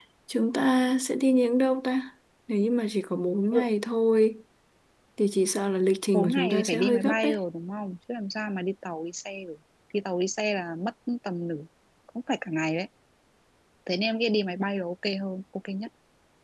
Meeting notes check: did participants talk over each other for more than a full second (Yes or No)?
Yes